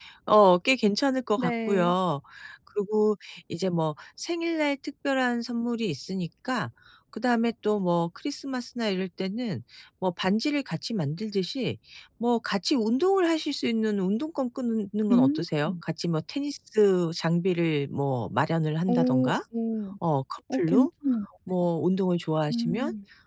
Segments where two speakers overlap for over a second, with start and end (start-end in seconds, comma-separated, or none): none